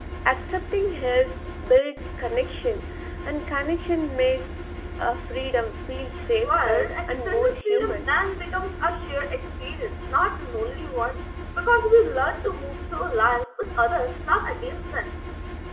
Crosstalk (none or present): present